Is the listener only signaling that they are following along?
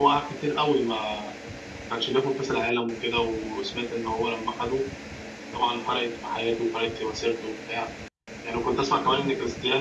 Yes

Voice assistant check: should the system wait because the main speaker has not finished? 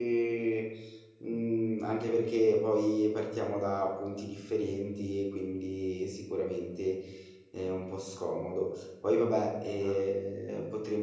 Yes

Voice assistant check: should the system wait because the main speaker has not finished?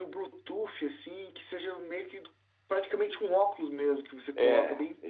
No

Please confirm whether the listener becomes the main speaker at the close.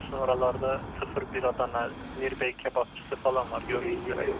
Yes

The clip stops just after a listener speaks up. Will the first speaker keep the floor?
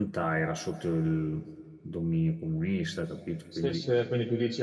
No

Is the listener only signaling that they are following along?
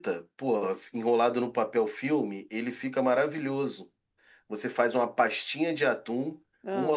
Yes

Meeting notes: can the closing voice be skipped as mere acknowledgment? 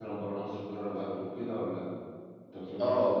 No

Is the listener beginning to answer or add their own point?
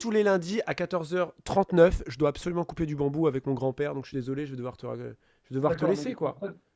Yes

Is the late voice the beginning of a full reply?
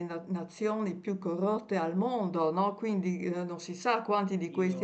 No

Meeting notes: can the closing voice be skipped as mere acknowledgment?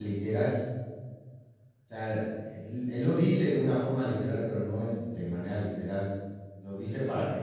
Yes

